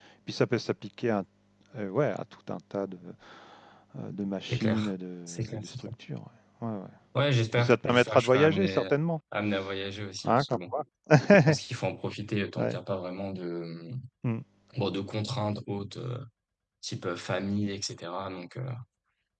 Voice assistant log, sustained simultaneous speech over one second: present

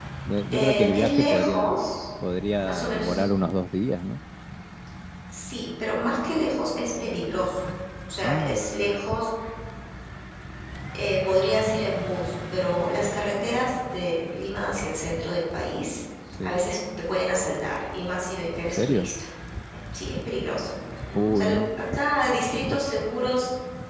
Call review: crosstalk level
present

